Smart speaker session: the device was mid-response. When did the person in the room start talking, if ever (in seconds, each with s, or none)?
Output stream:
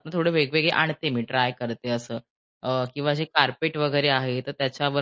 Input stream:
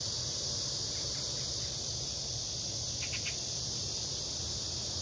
none